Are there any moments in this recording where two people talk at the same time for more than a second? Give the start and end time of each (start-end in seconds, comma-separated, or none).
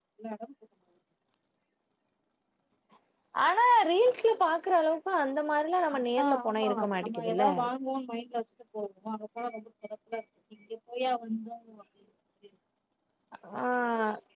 6.0-7.4